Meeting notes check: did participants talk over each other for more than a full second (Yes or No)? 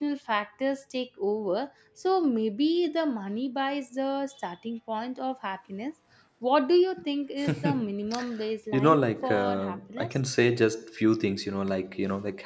Yes